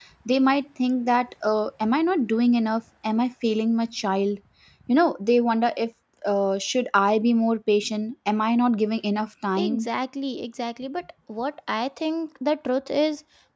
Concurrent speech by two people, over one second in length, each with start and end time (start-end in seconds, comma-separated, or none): none